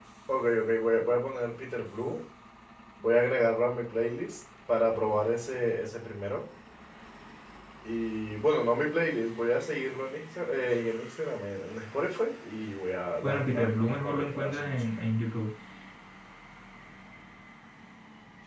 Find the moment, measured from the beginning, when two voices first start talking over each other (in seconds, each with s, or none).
13.2 s